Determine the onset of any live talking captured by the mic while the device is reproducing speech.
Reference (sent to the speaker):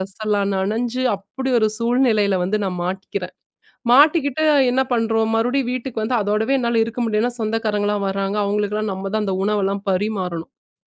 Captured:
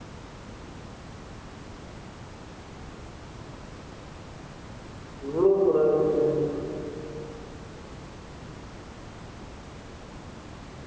5 s

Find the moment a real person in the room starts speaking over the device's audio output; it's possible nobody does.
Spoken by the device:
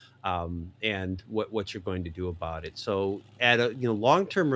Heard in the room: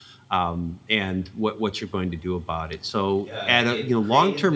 3 s

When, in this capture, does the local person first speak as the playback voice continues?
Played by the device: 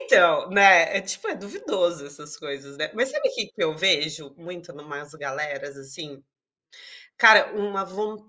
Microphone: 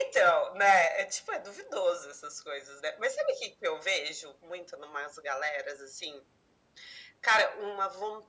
none

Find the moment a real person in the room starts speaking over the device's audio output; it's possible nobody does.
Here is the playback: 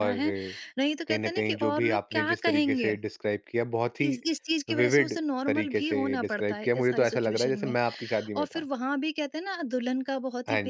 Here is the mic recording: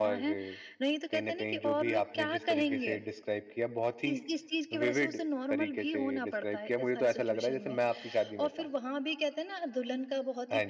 none

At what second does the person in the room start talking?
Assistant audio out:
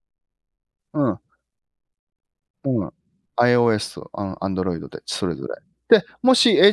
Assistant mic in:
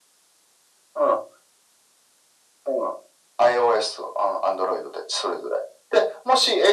none

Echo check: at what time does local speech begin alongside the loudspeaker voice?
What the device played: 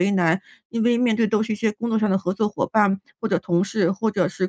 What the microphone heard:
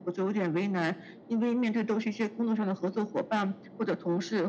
none

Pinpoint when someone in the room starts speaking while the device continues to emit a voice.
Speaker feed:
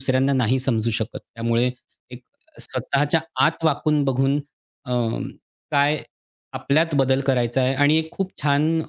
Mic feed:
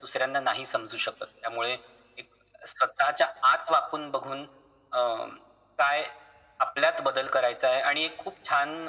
none

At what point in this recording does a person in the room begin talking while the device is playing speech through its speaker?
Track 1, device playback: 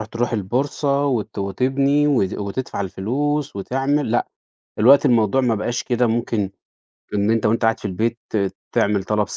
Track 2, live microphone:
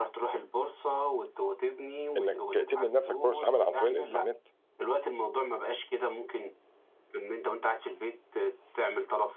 2 s

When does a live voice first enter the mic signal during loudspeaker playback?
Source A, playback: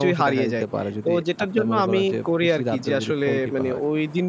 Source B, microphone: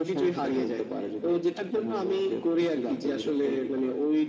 none

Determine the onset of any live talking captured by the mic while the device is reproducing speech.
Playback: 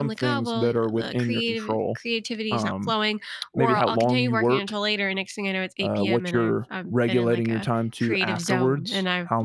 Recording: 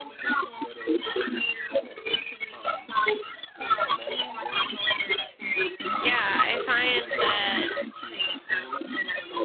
6 s

